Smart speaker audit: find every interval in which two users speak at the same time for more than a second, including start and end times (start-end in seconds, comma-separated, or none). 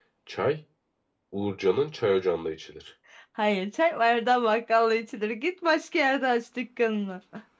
none